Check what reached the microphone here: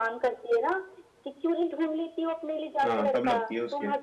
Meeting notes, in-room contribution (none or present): present